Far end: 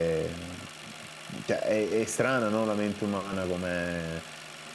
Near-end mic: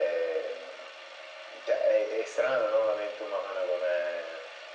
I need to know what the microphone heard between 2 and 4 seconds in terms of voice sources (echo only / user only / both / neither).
echo only